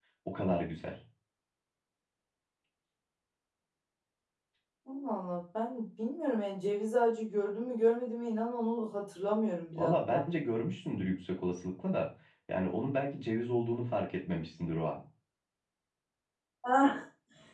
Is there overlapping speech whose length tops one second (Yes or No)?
No